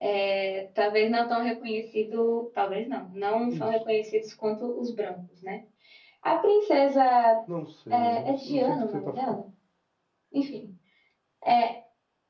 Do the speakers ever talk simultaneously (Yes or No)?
Yes